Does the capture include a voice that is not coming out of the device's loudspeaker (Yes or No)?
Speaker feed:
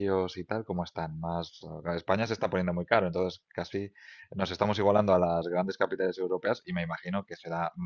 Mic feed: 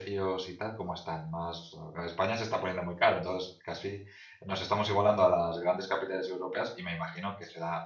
No